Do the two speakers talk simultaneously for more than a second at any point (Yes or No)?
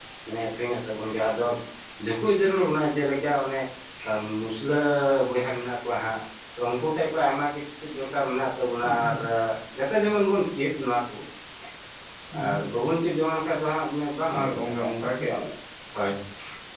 No